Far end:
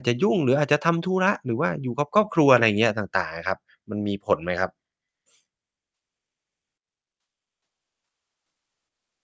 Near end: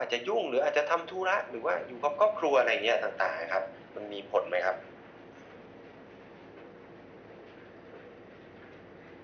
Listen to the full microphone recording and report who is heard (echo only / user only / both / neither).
echo only